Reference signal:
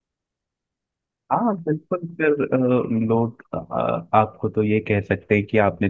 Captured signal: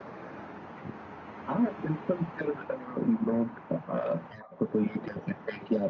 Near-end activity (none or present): none